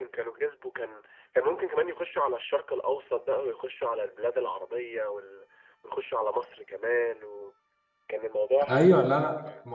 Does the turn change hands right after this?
Yes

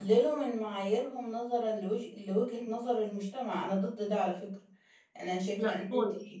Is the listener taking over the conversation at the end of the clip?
No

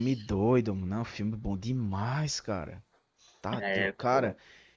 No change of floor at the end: Yes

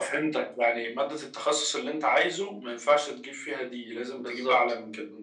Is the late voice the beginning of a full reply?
Yes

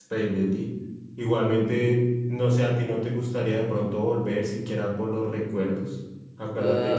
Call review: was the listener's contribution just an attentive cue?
No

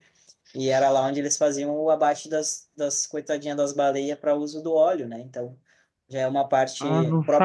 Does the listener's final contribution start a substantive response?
Yes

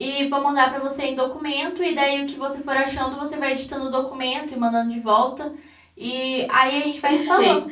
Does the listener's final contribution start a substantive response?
Yes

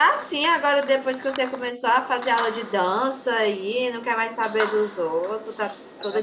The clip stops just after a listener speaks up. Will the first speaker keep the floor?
No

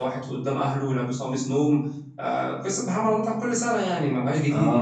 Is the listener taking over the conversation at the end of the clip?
Yes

